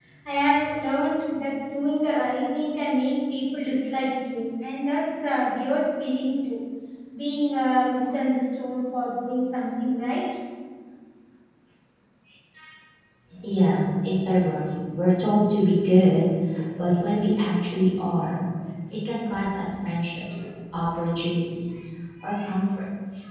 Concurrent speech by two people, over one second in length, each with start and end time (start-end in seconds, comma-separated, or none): none